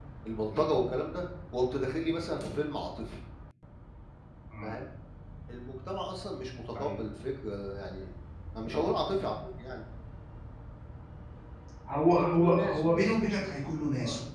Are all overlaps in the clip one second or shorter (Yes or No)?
No